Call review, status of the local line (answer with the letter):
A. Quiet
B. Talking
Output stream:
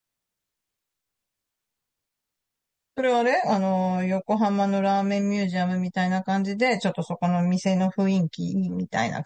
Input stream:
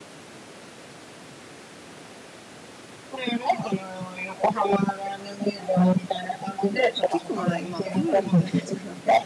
B